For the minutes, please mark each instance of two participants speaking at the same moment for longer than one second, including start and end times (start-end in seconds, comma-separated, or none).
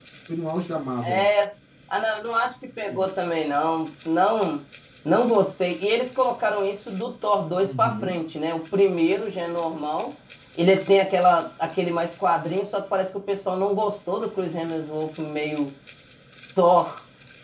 none